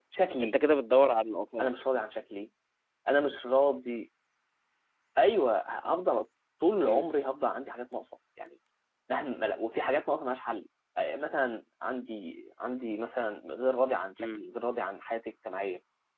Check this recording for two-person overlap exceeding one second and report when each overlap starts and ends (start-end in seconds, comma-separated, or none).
none